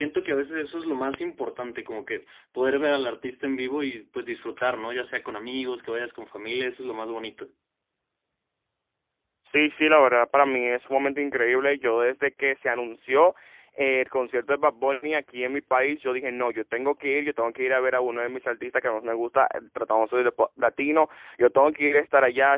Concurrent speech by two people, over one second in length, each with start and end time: none

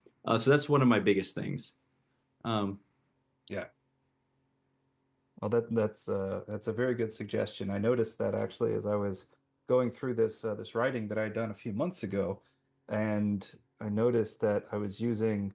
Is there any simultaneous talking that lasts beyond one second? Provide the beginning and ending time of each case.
none

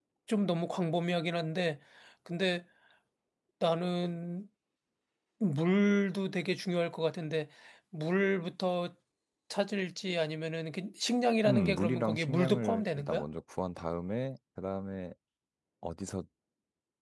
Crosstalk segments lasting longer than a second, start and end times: 11.4-13.2

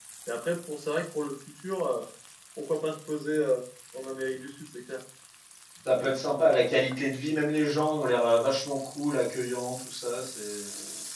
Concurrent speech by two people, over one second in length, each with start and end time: none

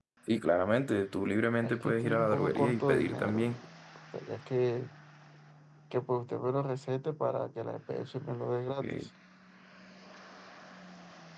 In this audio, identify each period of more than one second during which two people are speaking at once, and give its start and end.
1.6-3.6

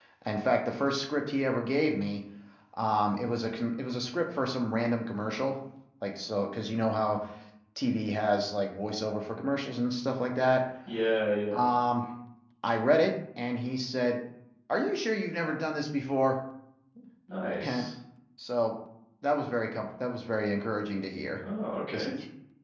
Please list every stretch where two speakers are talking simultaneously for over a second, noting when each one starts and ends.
none

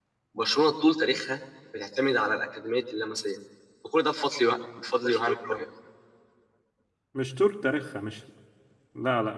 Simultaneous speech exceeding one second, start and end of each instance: none

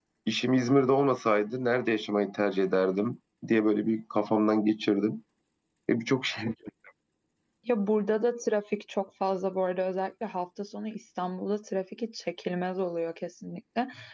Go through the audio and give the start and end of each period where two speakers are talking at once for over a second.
none

